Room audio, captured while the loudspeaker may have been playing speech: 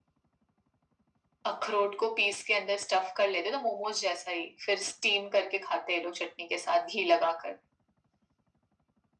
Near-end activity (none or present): none